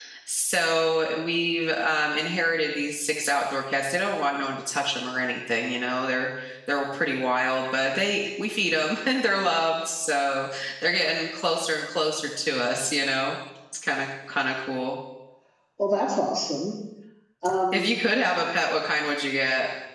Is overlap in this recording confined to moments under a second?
Yes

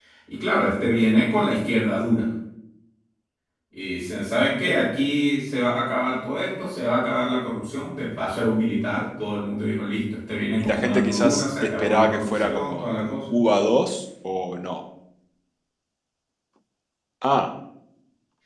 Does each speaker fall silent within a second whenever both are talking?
No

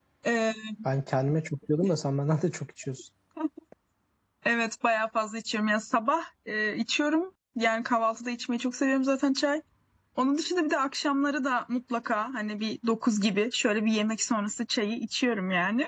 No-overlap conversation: Yes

